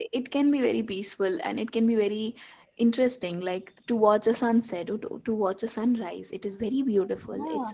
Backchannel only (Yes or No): No